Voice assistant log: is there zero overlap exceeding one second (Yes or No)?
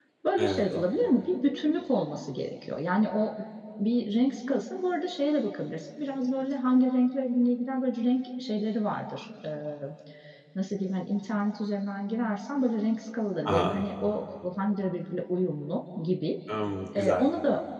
Yes